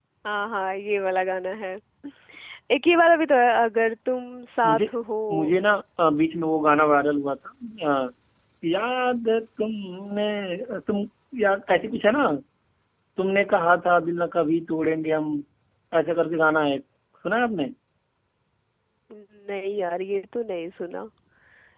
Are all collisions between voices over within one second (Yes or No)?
Yes